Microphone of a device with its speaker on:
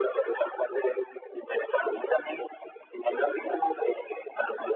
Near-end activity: none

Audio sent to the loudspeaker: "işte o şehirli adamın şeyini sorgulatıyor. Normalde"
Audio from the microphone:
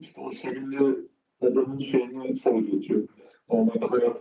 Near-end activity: none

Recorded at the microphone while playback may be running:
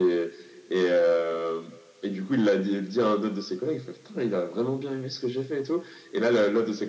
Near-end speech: none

